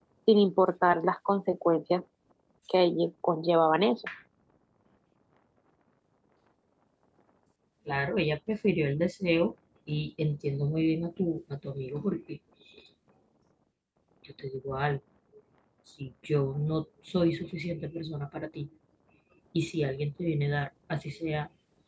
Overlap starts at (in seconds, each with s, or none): none